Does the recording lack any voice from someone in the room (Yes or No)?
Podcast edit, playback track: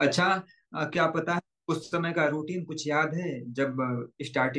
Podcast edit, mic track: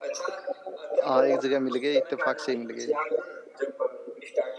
No